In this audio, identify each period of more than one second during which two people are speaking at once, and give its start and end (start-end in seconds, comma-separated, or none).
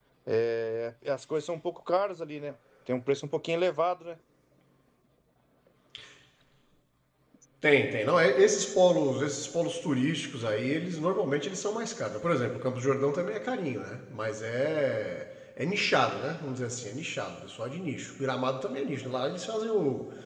none